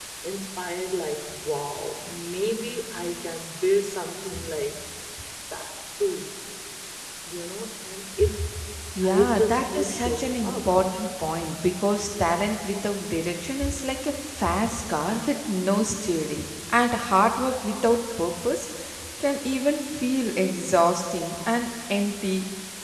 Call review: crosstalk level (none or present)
present